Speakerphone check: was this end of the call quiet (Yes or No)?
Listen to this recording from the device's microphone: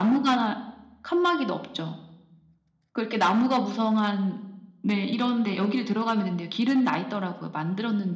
Yes